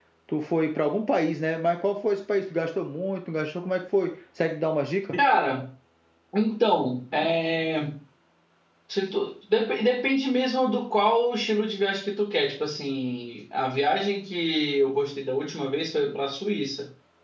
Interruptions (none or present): none